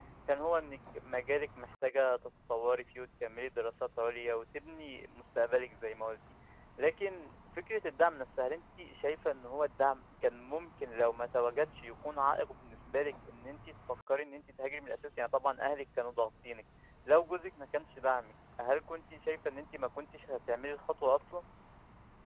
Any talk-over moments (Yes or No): No